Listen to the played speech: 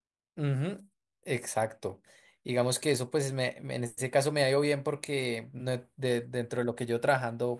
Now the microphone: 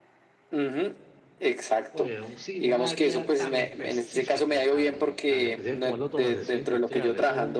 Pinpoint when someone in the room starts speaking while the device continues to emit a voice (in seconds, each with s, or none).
1.9 s